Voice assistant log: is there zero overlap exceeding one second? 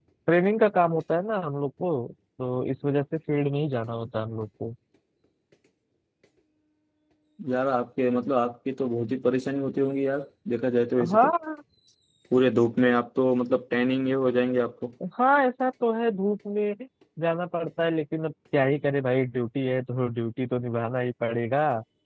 Yes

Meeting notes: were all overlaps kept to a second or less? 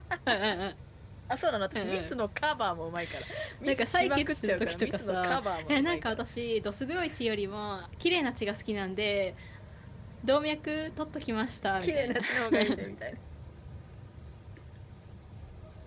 No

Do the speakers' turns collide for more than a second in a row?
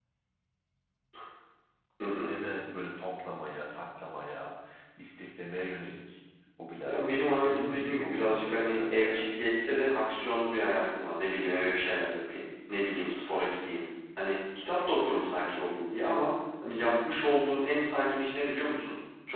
Yes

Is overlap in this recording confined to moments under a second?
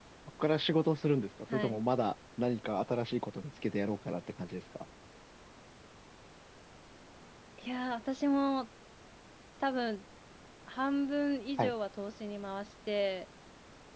Yes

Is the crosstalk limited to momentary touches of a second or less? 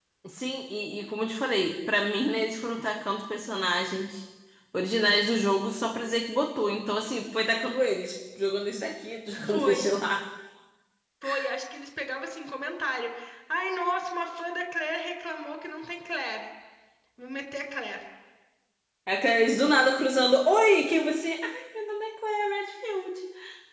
Yes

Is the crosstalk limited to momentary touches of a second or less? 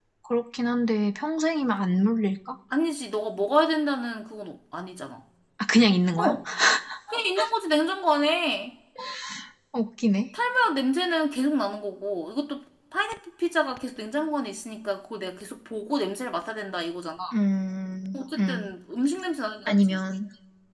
Yes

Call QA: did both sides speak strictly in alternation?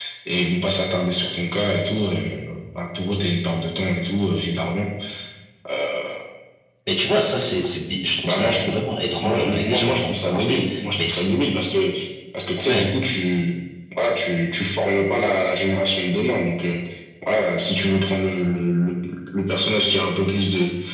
No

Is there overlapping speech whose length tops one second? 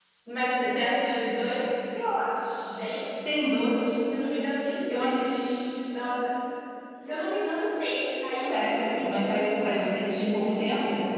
Yes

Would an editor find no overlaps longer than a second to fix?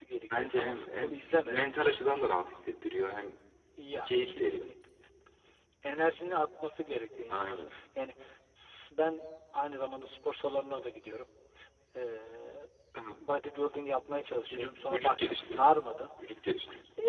No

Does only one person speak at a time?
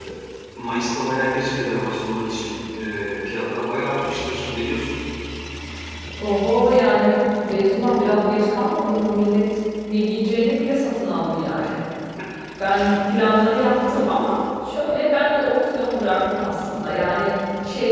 Yes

